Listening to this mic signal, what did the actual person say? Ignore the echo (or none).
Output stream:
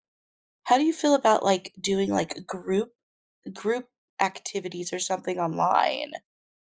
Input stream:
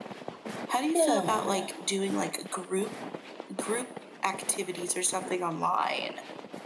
Yeah.